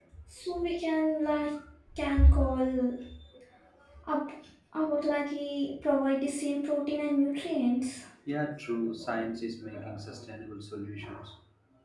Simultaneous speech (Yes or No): No